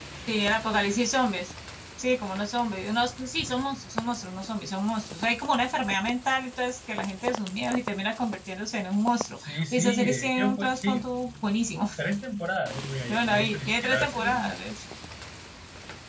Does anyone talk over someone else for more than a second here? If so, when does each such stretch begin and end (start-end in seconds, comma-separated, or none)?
9.4-11.0, 13.1-14.5